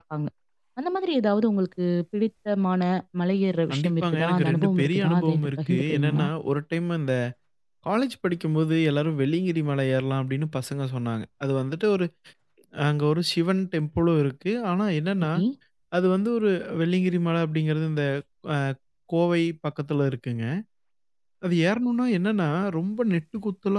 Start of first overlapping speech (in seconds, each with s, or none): 3.7 s